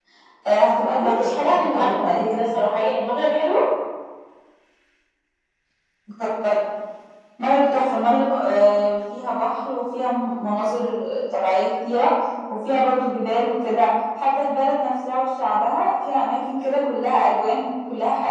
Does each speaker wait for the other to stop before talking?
No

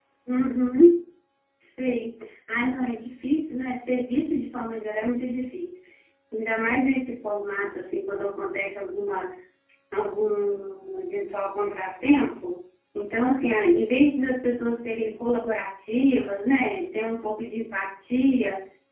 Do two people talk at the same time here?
No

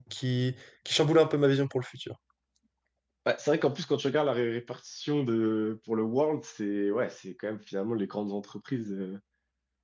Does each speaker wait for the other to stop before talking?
Yes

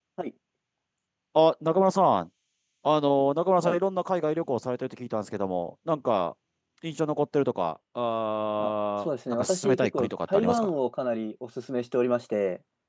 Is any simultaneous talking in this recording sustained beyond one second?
Yes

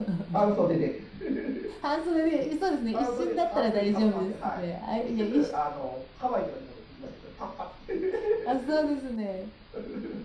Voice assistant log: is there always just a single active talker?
No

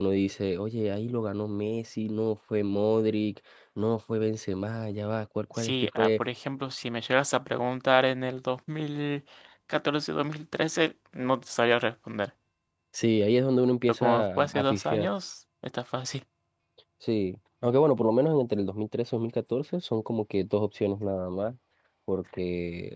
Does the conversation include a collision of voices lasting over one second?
Yes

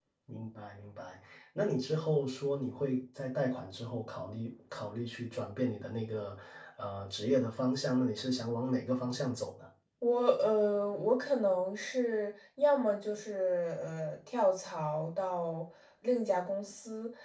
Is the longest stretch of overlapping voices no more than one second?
Yes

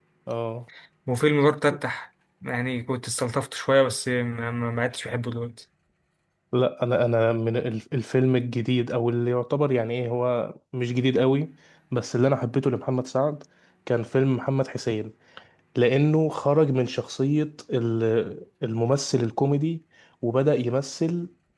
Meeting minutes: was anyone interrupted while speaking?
No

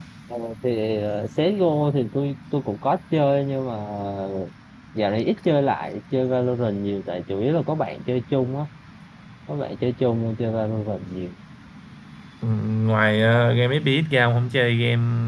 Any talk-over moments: No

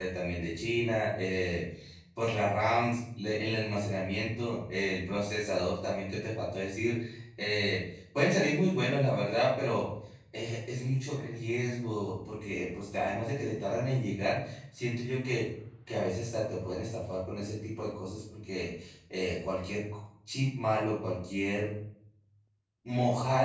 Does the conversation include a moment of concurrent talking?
No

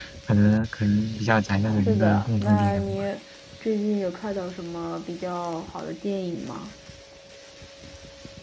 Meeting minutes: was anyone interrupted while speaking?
Yes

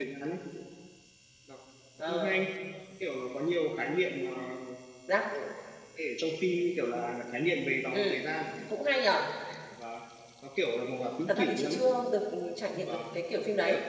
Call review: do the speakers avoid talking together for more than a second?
Yes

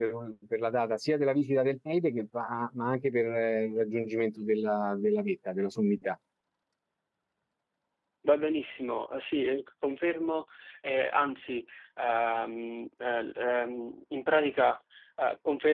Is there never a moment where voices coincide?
Yes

